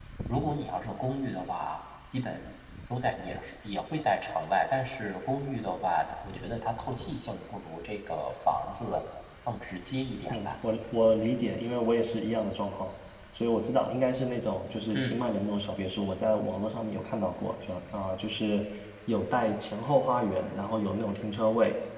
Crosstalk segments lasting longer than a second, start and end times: none

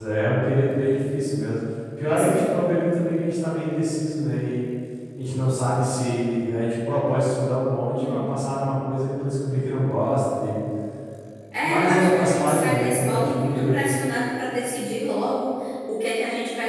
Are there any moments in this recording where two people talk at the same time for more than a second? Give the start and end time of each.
11.6-13.9

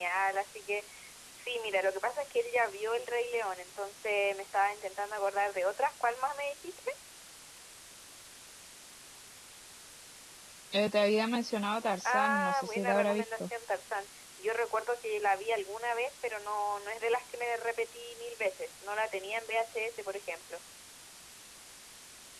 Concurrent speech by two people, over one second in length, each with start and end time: 12.0-13.5

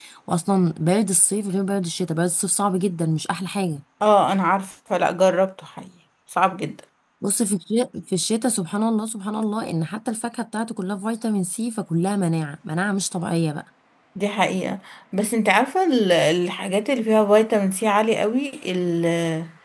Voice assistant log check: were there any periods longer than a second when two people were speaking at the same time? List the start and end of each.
none

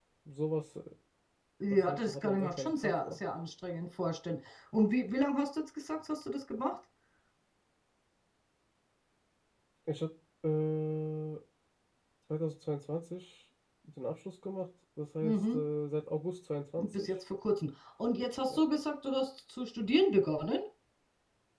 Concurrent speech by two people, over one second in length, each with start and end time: 1.7-3.2

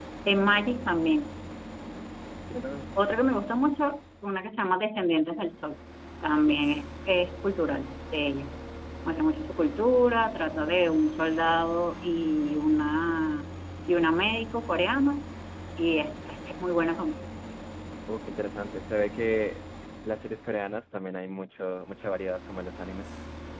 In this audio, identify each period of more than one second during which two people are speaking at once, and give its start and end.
none

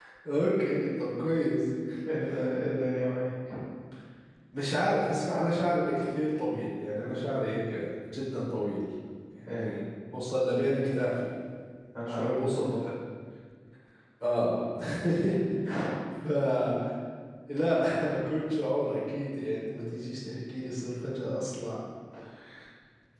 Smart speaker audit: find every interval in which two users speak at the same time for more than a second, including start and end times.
none

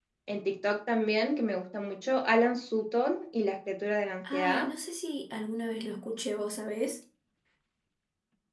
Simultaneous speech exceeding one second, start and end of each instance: none

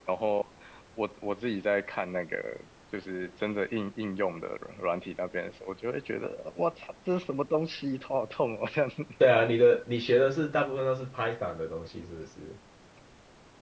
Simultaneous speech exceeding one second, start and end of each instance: none

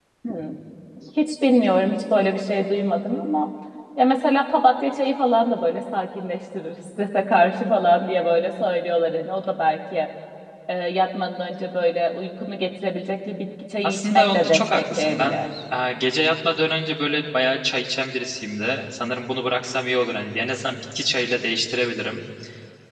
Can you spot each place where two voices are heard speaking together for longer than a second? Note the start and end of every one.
13.8-15.5

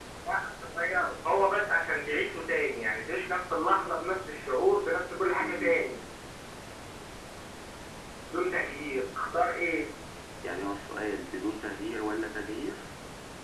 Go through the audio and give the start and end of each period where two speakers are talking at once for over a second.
none

